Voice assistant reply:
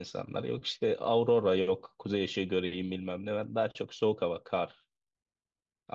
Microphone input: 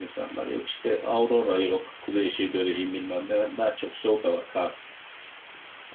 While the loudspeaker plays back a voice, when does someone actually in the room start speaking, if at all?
none

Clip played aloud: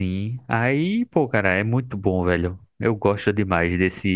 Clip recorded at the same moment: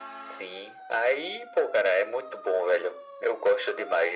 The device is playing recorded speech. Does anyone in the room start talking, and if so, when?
none

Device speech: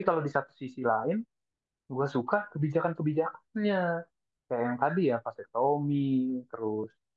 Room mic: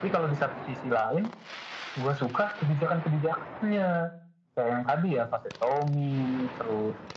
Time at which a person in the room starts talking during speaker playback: none

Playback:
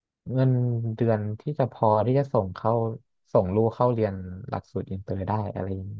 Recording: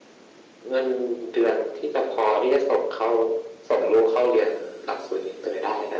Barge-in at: none

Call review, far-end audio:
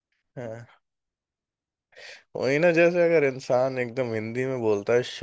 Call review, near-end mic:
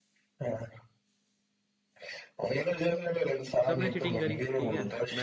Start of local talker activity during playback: 3.7 s

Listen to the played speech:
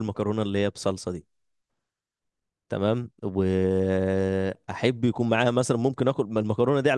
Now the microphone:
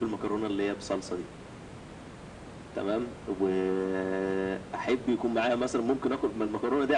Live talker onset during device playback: none

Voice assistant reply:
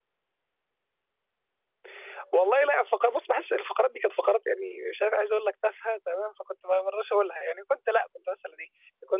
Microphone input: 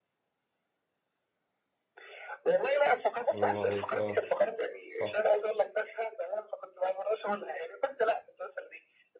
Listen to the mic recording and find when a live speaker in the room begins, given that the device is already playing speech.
3.3 s

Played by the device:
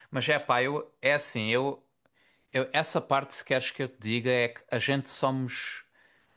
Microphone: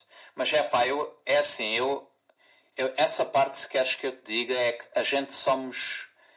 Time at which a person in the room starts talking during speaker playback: none

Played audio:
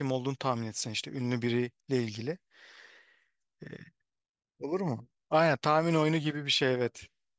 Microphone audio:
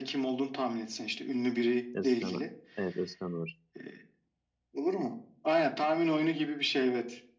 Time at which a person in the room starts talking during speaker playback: 1.9 s

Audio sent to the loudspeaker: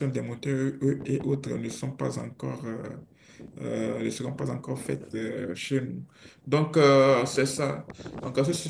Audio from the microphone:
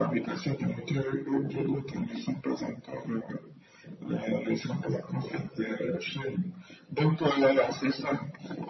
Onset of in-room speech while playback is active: none

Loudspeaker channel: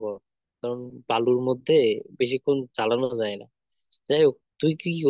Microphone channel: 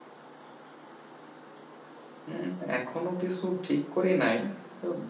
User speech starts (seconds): 2.3 s

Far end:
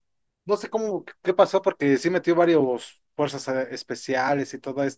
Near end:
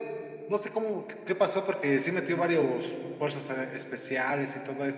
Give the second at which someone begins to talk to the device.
none

